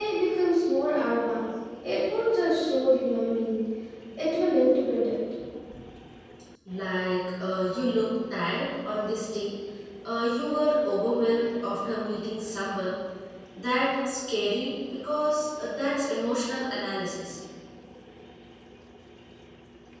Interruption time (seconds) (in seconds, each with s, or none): none